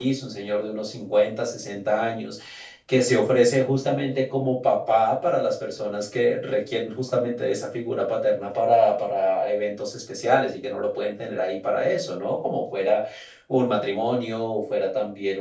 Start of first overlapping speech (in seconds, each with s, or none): none